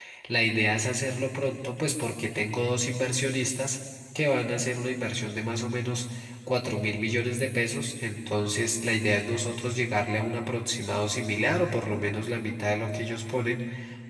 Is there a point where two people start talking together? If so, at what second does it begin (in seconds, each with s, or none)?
none